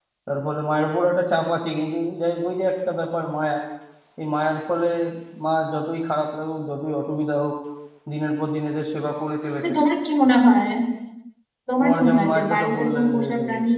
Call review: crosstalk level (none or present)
present